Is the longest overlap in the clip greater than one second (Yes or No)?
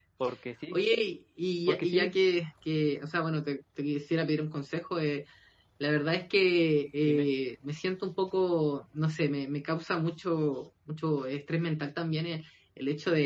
No